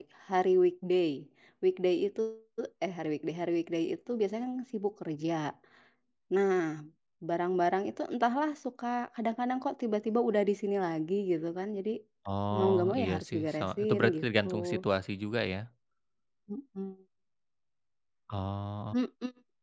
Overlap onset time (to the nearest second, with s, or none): 13 s